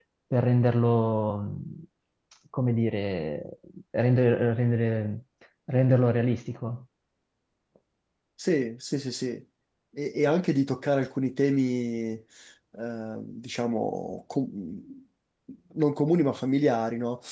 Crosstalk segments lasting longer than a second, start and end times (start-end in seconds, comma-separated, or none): none